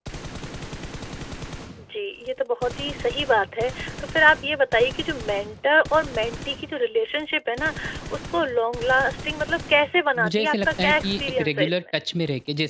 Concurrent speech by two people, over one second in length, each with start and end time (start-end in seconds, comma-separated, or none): 10.2-11.8